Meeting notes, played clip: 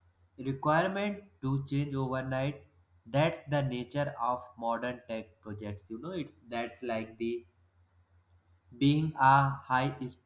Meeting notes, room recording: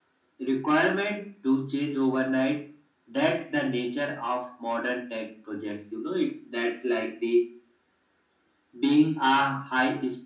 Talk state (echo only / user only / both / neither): echo only